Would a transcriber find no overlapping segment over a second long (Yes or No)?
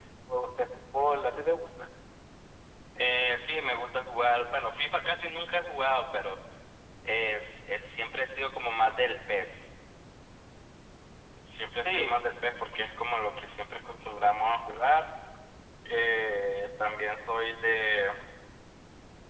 Yes